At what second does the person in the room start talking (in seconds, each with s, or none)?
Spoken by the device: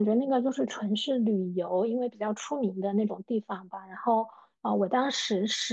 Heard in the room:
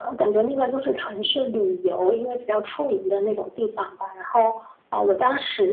none